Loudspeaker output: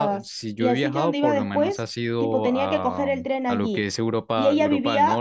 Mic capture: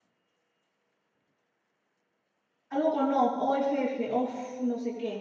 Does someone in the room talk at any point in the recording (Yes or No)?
Yes